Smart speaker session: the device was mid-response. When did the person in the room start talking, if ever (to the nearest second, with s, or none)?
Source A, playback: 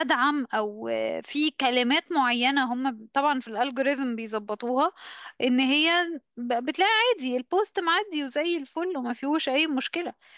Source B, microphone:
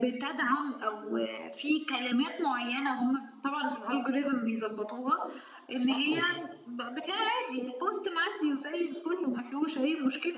6 s